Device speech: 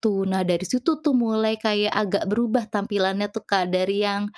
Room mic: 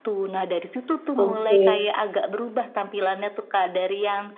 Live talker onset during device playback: 1.2 s

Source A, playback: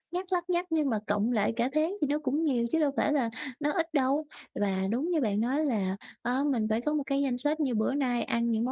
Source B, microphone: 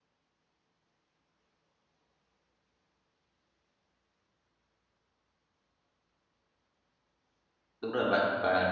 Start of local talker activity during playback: 7.8 s

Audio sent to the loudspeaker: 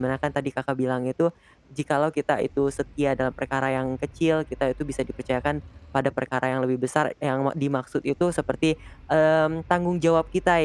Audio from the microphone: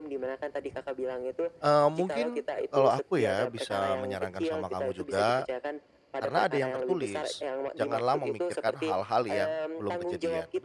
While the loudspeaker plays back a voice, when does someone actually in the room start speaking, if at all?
1.6 s

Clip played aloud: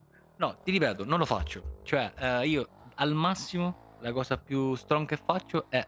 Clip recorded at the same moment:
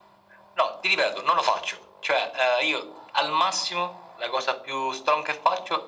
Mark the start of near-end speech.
none

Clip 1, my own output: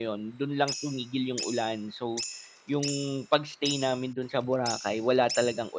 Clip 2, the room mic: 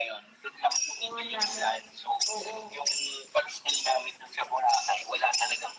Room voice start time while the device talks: 1.0 s

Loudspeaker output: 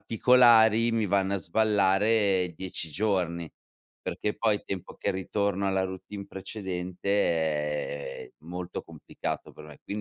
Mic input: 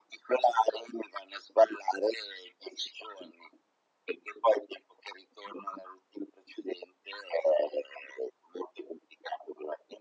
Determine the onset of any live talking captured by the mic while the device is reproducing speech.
none

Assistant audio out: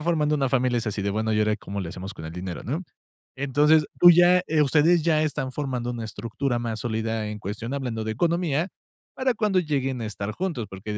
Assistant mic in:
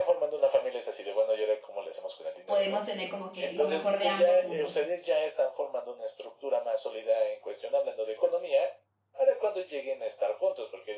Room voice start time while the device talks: 2.5 s

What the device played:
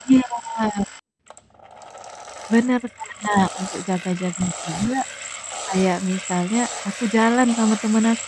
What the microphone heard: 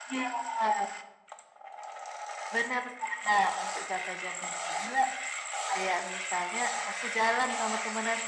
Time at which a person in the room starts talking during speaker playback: none

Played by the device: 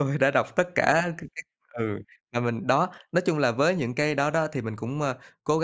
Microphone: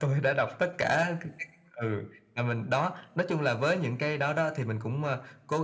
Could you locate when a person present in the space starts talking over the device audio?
none

